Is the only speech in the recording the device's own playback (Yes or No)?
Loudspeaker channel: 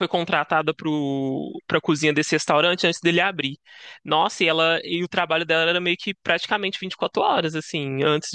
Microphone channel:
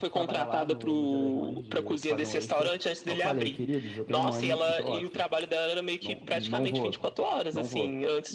No